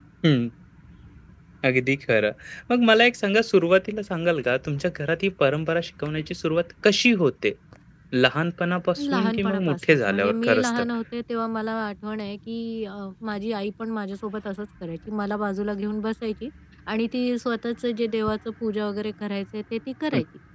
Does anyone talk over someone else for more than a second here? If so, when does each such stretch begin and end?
9.1-10.8

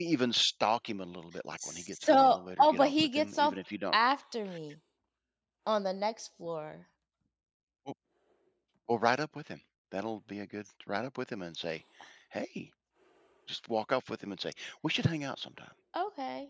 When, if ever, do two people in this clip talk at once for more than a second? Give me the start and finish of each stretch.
1.6-3.5

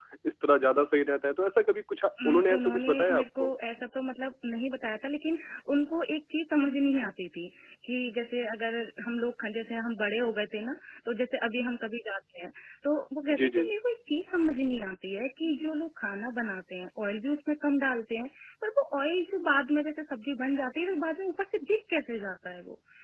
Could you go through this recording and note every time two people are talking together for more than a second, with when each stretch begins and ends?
2.2-3.5

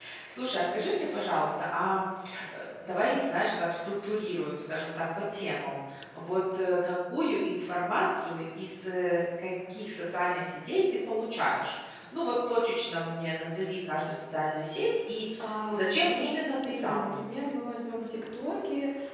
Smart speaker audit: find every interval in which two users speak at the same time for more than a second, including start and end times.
15.7-17.1

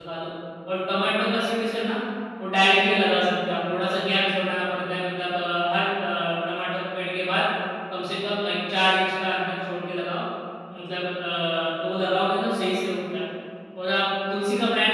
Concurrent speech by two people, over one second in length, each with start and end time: none

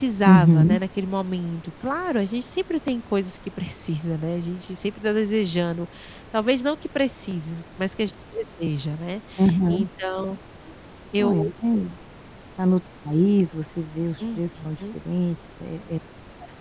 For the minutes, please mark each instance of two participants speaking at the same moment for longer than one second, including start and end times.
none

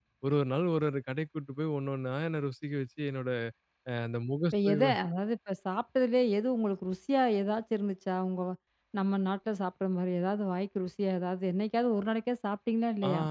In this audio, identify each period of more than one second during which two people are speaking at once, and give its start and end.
none

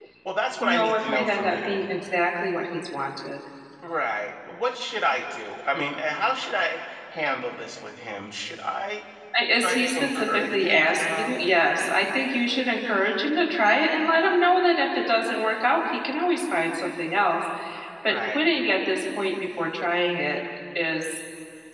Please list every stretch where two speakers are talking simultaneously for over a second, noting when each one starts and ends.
0.6-1.8, 9.6-11.3

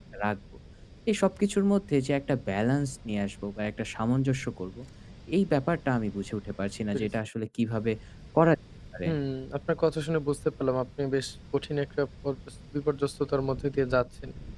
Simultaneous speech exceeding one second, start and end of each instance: none

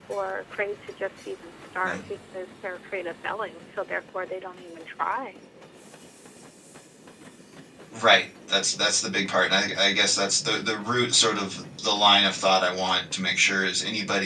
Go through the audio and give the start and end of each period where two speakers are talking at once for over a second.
none

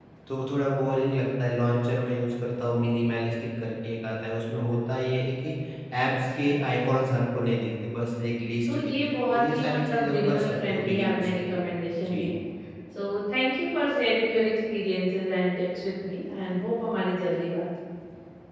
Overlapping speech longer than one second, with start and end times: 8.7-11.6

